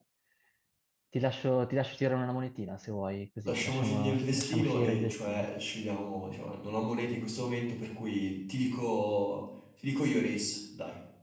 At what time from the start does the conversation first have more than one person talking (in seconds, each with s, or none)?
3.5 s